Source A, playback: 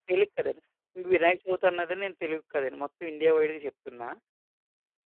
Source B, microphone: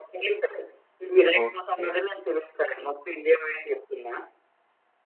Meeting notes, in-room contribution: present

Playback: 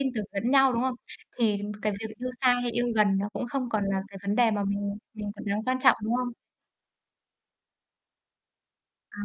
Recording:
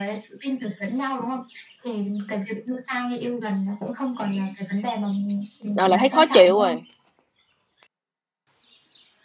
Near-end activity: present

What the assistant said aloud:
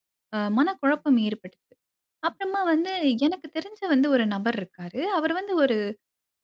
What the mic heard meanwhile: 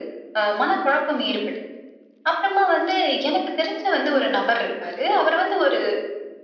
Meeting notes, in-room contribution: none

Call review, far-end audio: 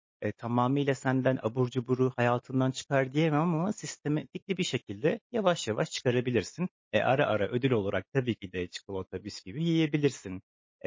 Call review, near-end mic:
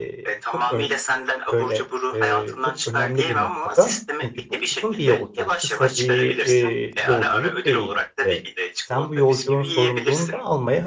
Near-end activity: present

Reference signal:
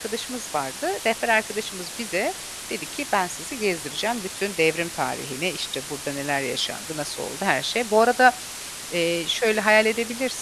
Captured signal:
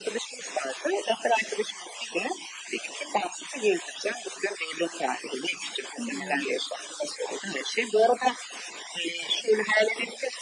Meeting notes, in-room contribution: present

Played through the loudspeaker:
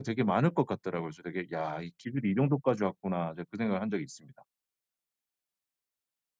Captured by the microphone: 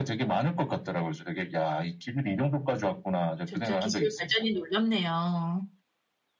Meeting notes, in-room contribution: present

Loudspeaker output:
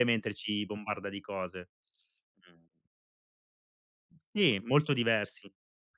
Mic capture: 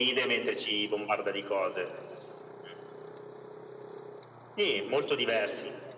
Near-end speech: none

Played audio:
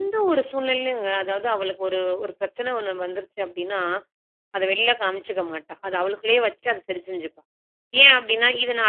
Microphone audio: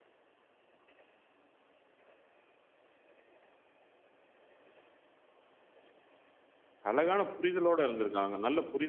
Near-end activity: present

